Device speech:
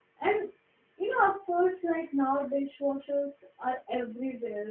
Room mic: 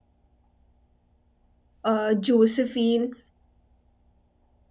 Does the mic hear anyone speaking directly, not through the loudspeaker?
Yes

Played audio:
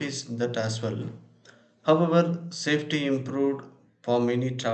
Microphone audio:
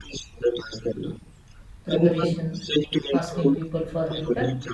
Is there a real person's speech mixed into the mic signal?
Yes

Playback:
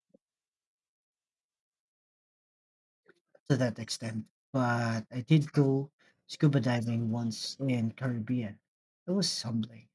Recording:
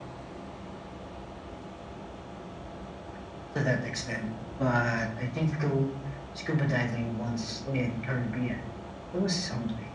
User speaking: No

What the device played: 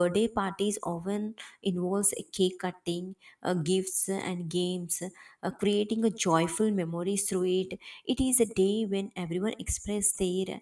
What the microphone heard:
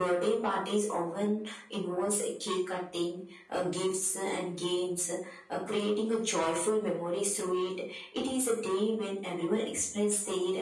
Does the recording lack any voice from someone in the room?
Yes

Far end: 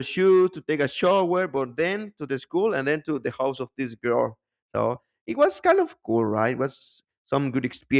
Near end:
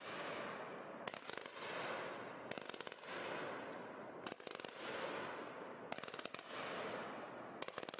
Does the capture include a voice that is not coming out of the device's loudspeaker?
No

